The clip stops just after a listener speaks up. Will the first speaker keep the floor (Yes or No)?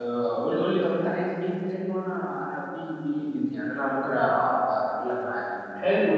No